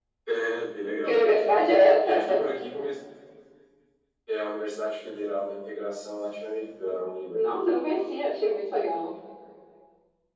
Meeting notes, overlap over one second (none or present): none